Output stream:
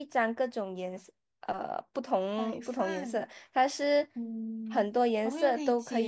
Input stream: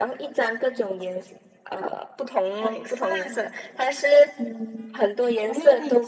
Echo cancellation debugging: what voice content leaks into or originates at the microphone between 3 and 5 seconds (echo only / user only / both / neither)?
echo only